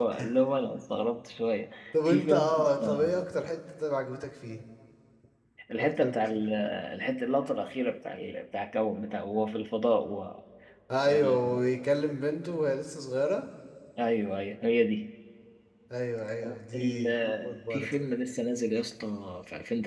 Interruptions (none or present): present